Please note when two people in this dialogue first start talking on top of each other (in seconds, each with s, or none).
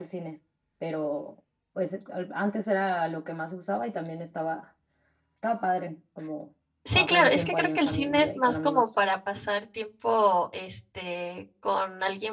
6.8 s